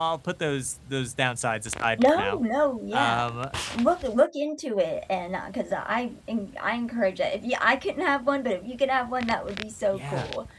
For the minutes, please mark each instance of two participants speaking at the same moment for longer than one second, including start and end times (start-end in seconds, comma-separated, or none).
none